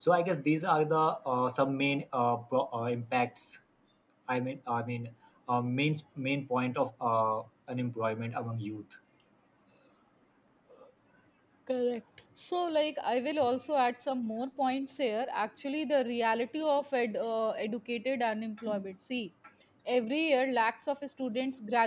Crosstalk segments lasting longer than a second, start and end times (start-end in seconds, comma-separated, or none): none